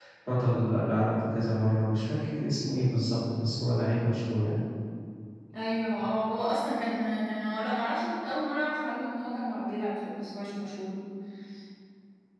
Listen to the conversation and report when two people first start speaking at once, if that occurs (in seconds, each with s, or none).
none